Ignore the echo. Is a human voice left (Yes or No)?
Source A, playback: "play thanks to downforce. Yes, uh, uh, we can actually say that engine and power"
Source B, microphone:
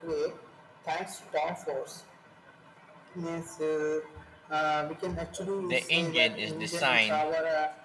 Yes